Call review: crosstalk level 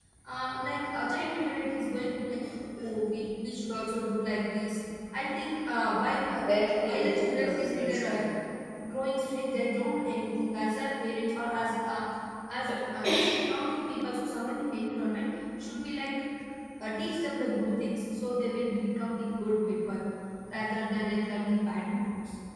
present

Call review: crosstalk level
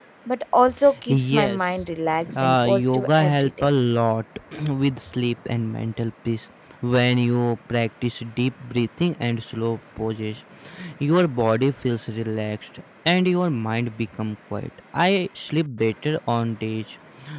present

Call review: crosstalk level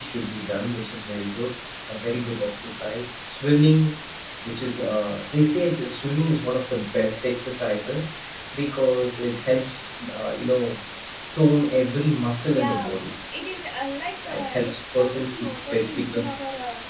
present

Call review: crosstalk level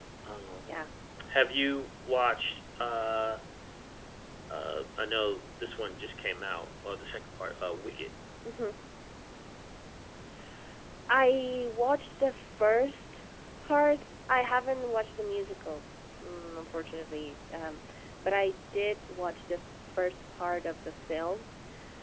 none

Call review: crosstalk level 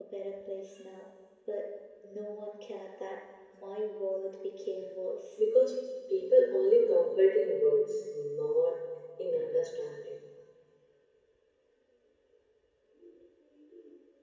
none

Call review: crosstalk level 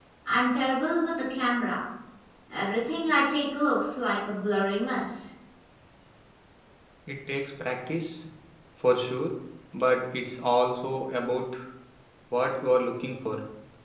none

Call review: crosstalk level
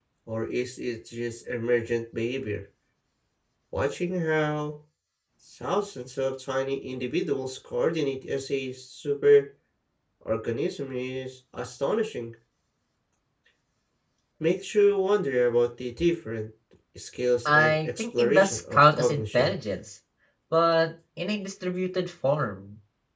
present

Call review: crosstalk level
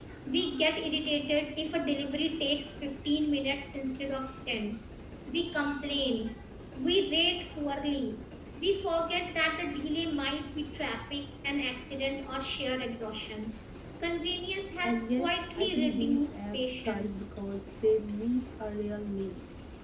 present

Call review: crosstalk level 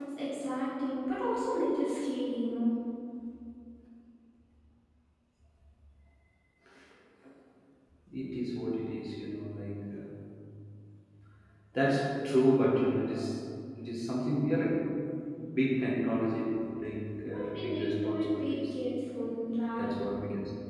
present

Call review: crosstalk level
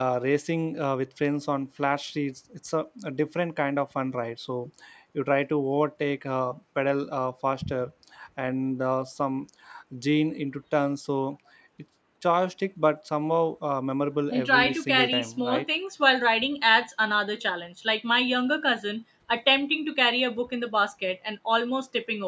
present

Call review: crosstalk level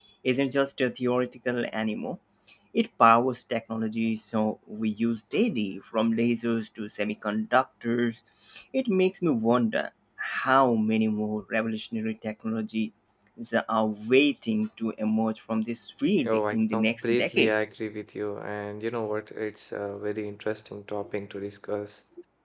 present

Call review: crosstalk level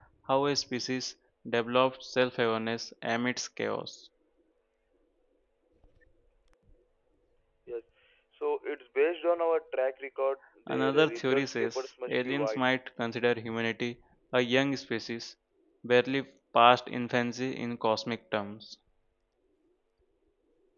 present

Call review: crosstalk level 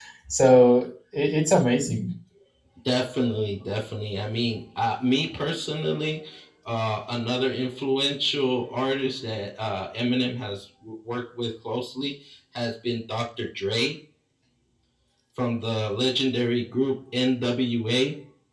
none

